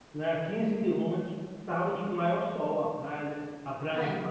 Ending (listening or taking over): listening